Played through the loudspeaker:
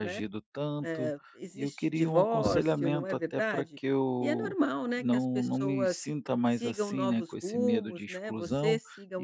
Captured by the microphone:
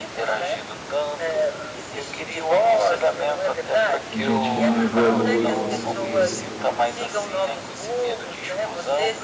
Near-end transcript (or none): Tem gente que não evolui, com certeza.